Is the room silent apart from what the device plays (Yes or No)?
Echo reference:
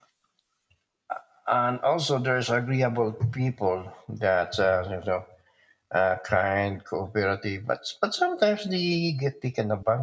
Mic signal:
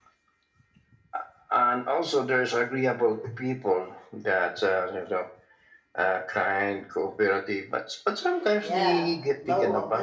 No